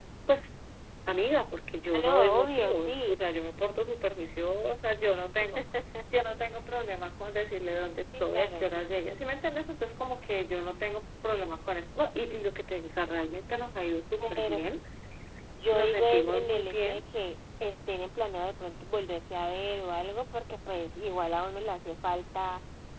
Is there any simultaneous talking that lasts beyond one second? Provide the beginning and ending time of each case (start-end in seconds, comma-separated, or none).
1.9-3.2, 15.7-17.0